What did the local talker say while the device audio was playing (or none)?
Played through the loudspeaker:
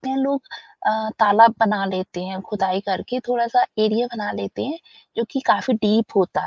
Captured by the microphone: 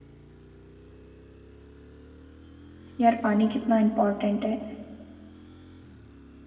यार पानी कितना इम्पोर्टेंट है।